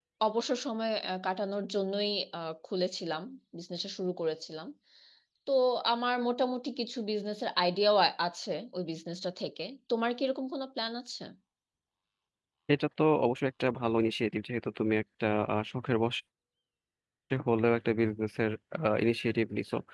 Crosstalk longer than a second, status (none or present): none